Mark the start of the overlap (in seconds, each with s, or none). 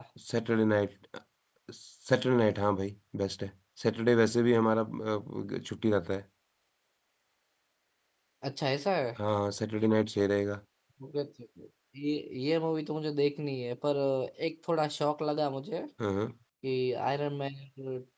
none